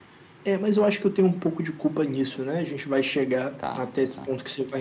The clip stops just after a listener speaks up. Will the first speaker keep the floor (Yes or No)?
Yes